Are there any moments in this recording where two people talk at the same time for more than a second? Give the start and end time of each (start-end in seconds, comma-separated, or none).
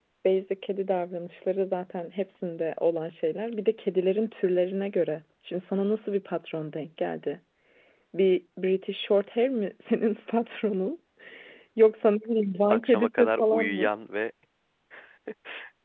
12.7-13.9